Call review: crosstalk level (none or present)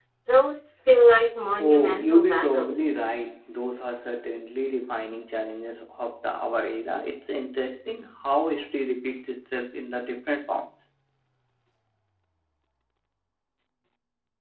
present